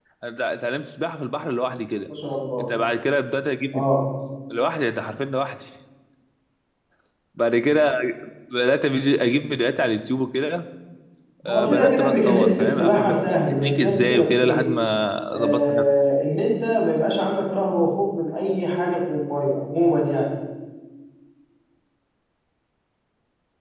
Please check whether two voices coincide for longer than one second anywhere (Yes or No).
Yes